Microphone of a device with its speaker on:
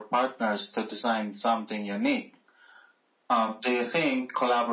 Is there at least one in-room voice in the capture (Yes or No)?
No